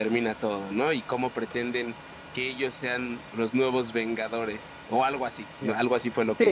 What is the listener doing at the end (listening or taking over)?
taking over